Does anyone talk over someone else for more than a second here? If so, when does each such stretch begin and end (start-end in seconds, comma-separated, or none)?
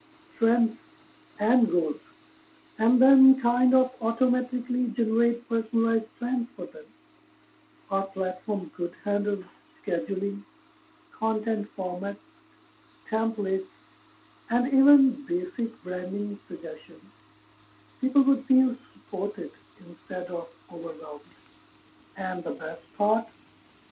none